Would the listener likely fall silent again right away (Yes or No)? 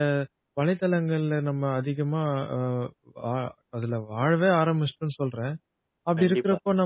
Yes